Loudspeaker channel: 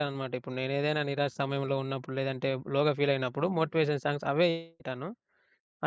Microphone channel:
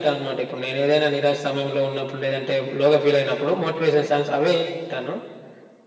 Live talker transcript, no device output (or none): none